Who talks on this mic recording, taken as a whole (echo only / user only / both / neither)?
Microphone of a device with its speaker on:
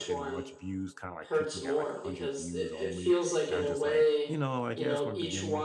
both